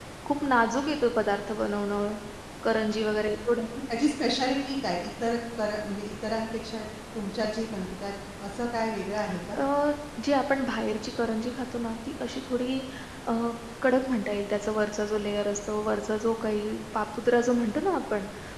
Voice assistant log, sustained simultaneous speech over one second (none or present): none